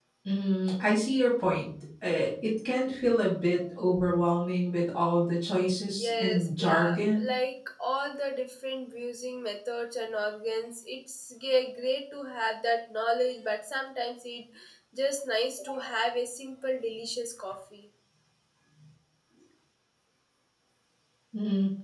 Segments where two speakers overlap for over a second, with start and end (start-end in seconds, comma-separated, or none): 6.0-7.2